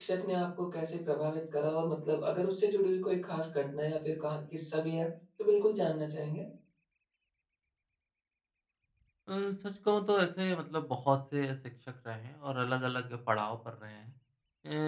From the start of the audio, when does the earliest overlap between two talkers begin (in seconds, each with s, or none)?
none